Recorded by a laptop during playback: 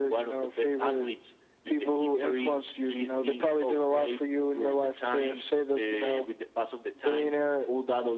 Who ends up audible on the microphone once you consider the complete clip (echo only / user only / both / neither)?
echo only